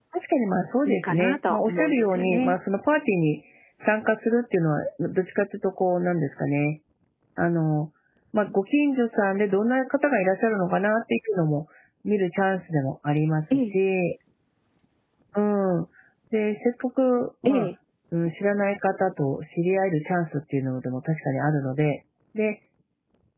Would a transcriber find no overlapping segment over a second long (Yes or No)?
No